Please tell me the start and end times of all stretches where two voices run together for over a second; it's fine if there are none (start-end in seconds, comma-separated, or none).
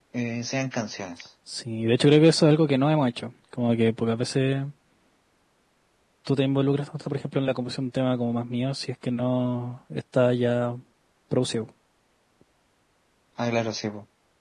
none